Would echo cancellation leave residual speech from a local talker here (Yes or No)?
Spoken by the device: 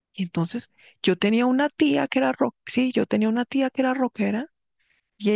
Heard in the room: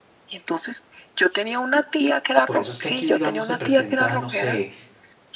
Yes